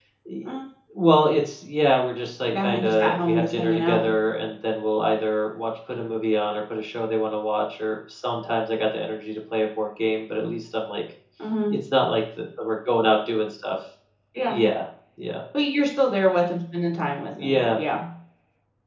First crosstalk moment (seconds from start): 2 s

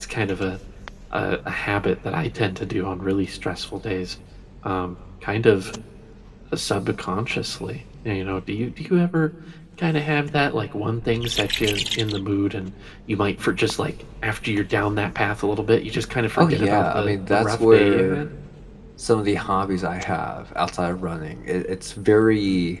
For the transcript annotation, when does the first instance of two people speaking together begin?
16 s

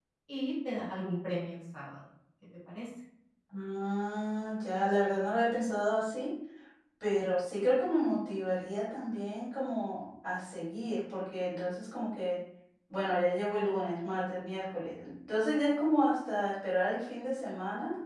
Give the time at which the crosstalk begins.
none

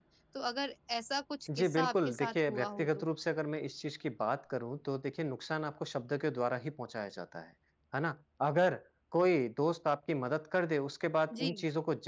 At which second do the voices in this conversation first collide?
2 s

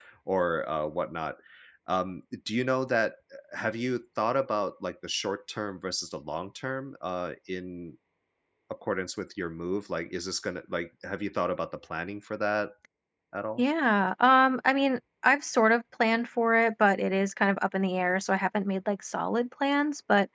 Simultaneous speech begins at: none

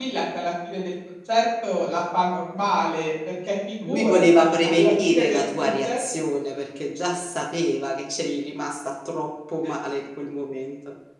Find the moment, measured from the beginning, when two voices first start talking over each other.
4 s

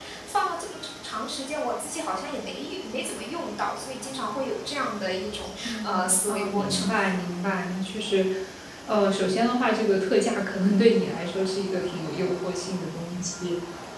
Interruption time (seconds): 6 s

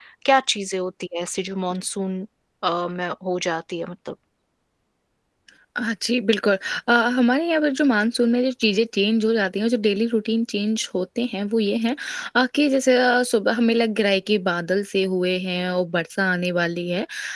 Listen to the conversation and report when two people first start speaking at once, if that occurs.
none

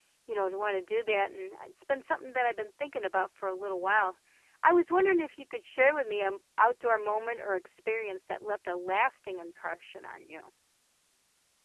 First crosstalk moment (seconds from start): none

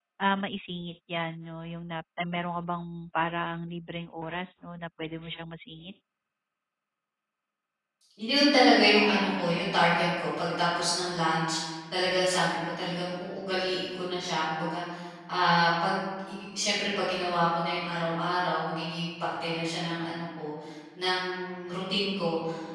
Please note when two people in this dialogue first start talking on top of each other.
none

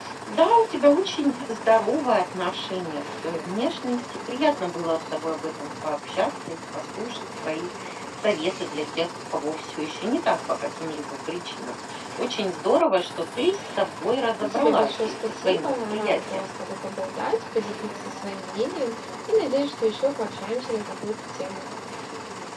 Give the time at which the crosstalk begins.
14 s

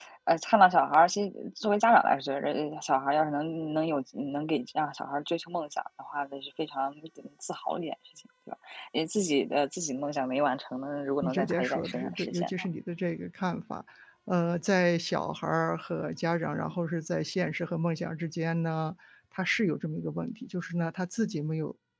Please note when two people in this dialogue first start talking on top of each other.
11 s

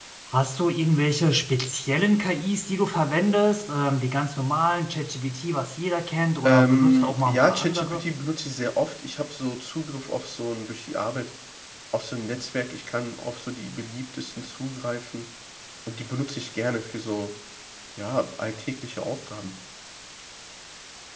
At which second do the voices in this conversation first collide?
6 s

